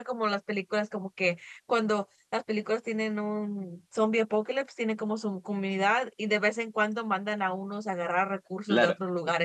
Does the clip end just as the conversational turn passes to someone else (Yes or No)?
Yes